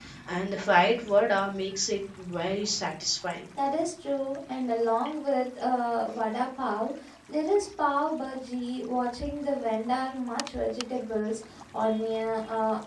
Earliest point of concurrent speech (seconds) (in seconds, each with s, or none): none